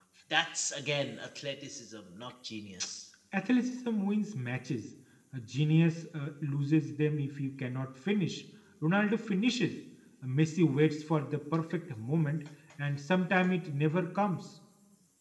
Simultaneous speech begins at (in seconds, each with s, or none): none